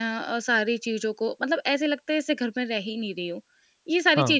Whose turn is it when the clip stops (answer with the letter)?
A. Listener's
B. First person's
B